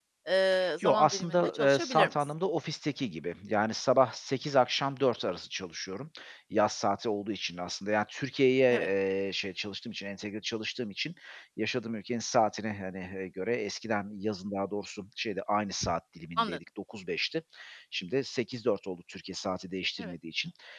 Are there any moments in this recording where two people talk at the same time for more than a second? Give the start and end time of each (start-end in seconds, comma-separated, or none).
0.8-2.1